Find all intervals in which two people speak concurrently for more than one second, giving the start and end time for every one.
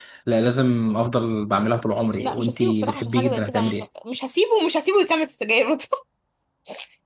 2.2-3.8

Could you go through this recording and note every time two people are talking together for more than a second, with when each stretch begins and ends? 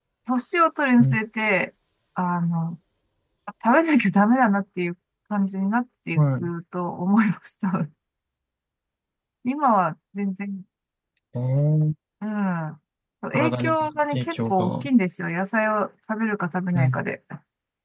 13.3-14.9

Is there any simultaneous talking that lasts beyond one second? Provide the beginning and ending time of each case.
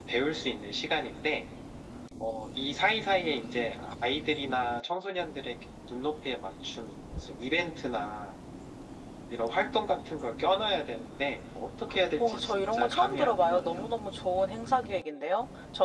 12.2-13.8

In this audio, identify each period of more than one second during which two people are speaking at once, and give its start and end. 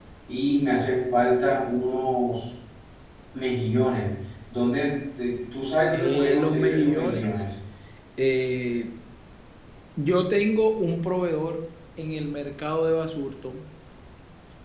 5.9-7.4

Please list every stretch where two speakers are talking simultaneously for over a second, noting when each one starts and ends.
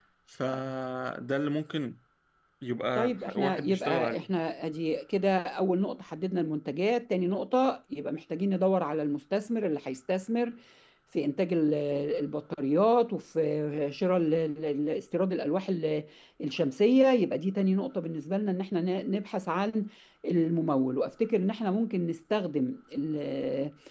3.0-4.3

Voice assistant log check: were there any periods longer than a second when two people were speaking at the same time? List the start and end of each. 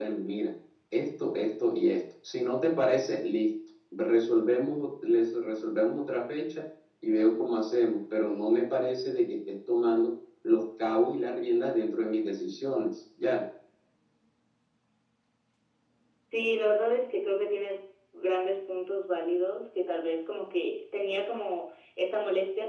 none

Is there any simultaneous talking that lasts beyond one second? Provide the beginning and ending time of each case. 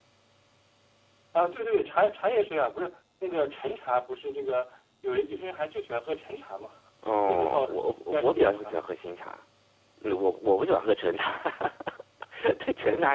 7.2-8.7

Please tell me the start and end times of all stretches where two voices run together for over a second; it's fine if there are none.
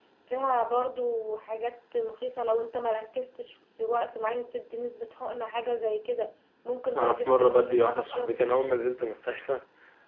7.0-8.4

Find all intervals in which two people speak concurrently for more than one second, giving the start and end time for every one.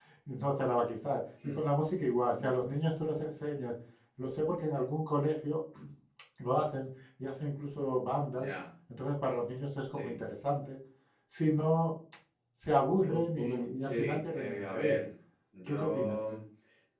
13.1-15.0

